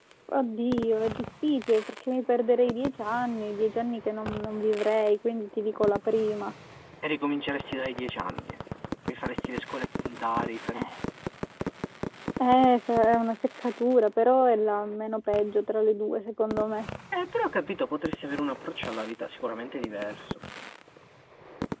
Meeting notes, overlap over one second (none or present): none